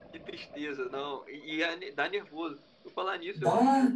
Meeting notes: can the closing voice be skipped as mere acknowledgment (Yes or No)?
Yes